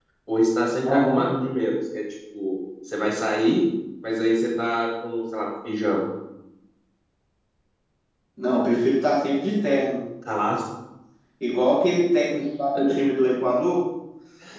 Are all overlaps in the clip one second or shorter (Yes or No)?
Yes